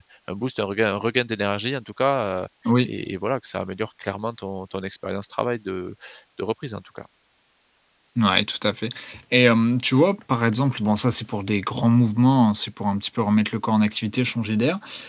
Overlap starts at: none

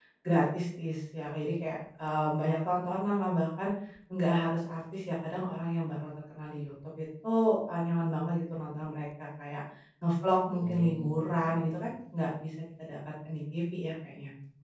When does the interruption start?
10.5 s

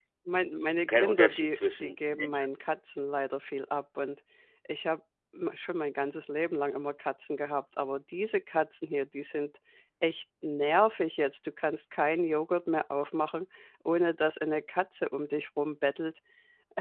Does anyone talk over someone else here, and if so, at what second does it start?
0.9 s

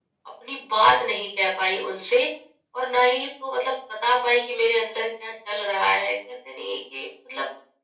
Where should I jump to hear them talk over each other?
none

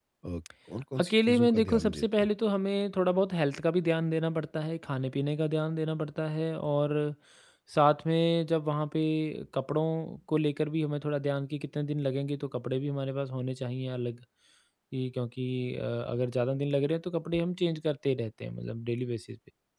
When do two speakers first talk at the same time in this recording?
1.0 s

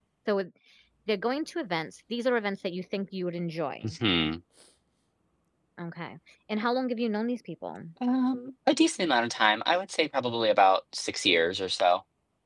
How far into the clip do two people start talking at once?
none

